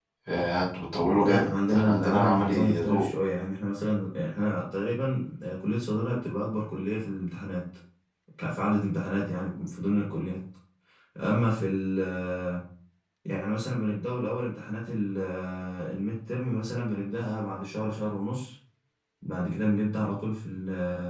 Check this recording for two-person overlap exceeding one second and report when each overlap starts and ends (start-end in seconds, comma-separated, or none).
1.0-3.0